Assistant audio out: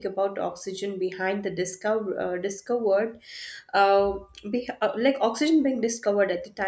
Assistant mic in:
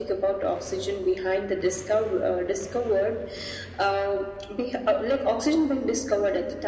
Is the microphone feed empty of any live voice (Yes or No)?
Yes